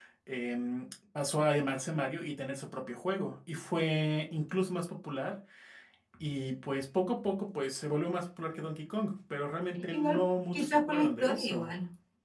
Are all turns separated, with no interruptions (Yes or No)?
No